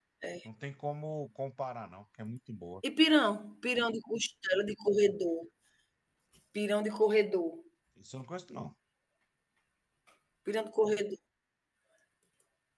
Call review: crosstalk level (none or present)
none